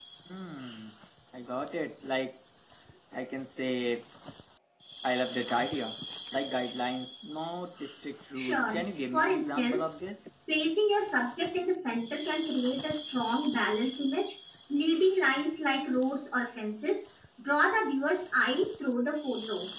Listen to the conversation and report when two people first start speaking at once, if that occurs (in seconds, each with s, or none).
8.4 s